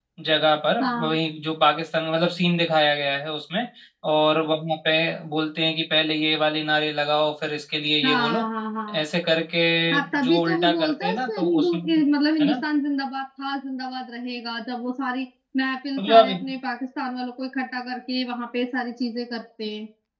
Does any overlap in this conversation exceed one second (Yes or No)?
Yes